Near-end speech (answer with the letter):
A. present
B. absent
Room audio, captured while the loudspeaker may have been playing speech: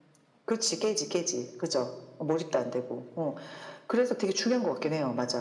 B